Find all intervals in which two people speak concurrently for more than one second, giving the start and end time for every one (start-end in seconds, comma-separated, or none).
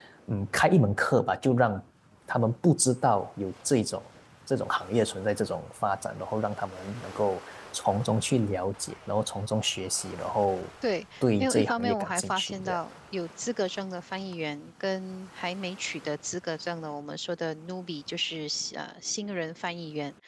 11.2-12.8